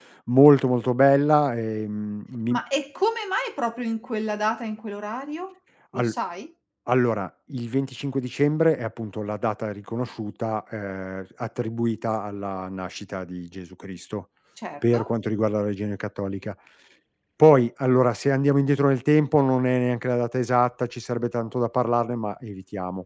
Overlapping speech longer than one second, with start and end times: none

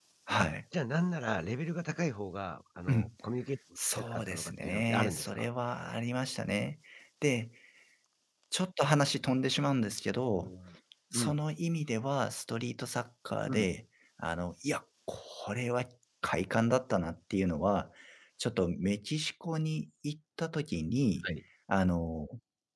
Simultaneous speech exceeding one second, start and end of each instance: 4.0-5.5

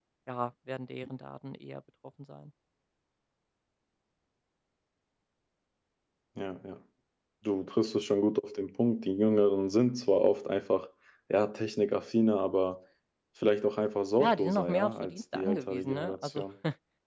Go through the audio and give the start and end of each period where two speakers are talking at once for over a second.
14.2-16.4

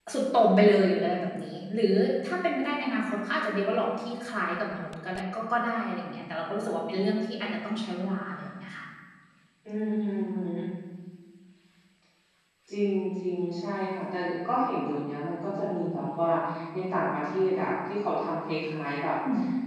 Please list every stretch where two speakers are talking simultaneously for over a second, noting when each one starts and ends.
none

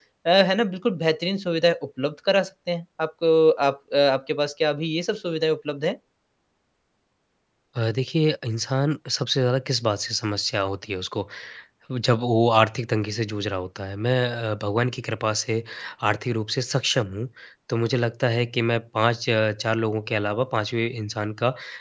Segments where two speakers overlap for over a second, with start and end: none

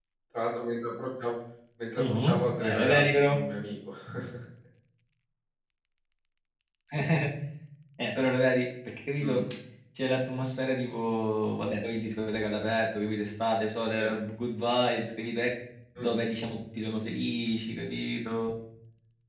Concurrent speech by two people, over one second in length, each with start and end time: 2.0-3.4

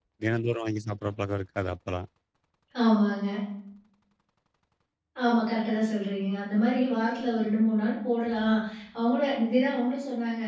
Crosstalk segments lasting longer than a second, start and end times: none

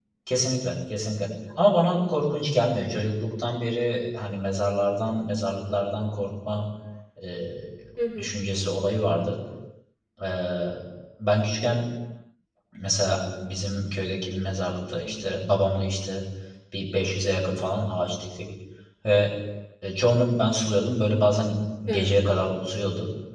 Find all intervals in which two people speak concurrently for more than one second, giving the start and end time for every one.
none

